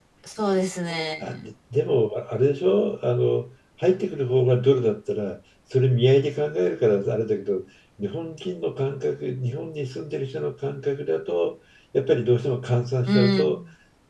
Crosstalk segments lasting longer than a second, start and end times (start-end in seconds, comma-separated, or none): none